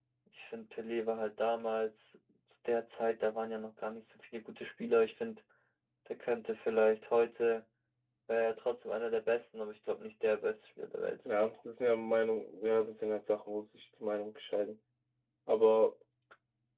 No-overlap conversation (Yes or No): Yes